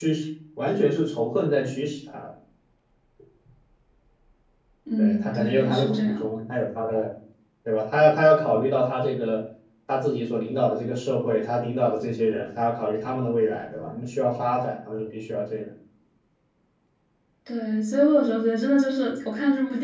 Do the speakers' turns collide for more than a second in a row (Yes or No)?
Yes